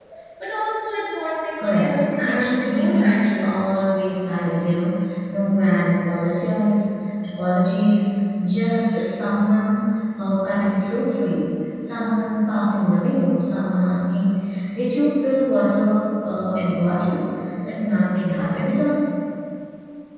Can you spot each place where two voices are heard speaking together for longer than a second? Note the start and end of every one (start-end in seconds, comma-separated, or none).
1.6-3.6